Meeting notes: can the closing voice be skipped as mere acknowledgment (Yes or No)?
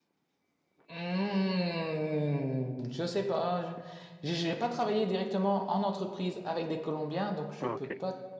Yes